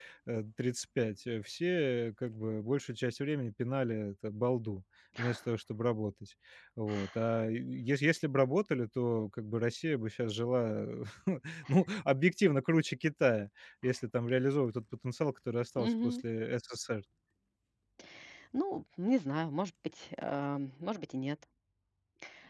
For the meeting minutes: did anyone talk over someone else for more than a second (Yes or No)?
No